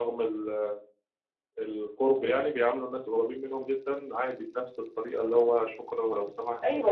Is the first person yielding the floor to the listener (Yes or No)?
Yes